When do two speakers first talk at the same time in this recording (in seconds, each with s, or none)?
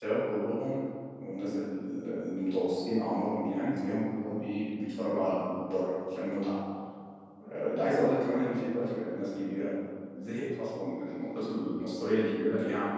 none